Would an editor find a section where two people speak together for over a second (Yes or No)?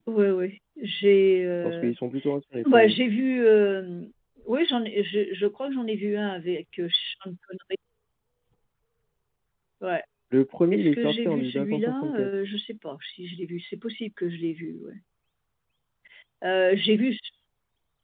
Yes